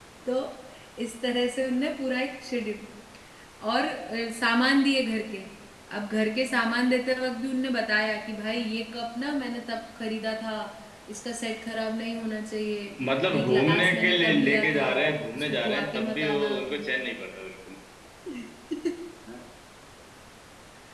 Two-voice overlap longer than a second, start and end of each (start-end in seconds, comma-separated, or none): 13.3-14.9, 15.4-16.8